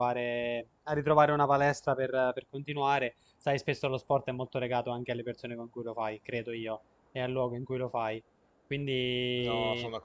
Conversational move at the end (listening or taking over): taking over